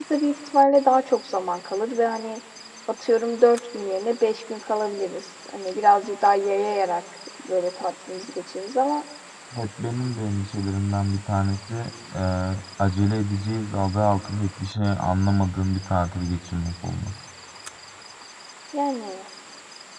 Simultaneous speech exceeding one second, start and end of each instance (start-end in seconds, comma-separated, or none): none